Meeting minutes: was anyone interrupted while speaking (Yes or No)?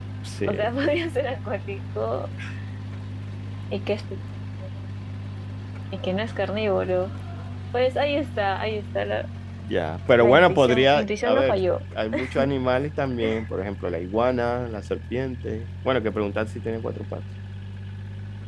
Yes